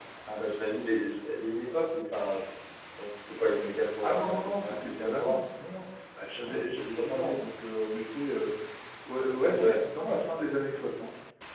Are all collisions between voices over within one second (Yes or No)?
No